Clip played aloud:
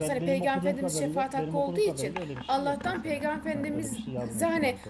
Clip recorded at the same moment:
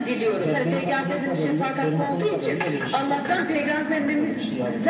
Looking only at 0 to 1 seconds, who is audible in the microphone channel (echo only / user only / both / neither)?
echo only